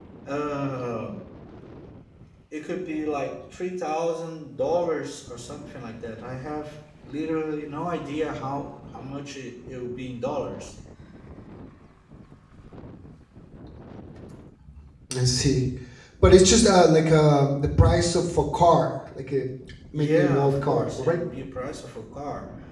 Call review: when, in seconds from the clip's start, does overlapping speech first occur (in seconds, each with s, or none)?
19.9 s